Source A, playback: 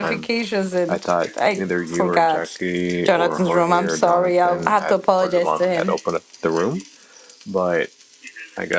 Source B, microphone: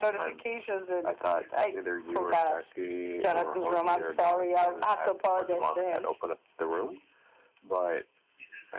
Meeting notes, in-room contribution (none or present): none